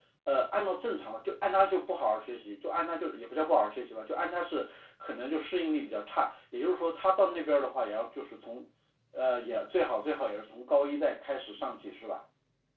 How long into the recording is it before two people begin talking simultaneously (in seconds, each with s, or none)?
none